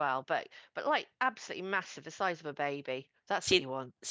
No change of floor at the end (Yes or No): No